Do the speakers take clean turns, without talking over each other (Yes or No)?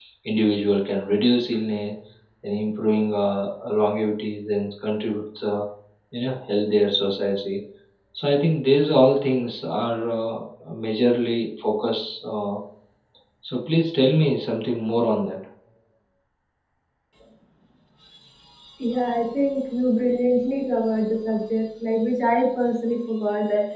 Yes